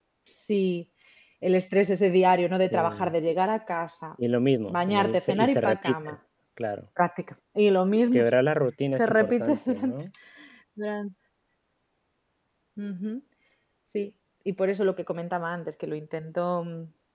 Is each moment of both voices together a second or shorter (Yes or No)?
No